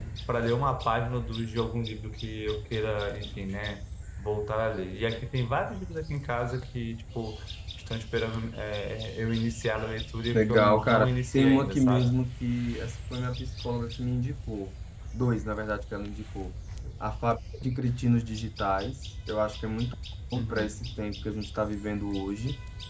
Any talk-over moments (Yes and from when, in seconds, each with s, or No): Yes, from 10.3 s